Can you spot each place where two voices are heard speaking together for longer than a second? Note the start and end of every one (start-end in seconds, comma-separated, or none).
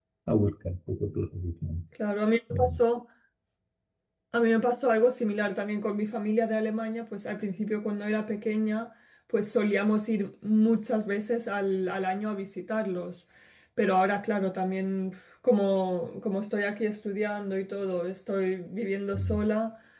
none